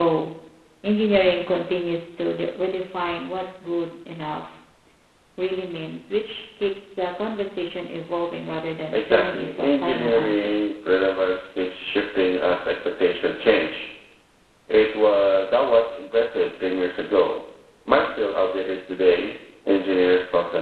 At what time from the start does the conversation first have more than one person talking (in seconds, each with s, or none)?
8.9 s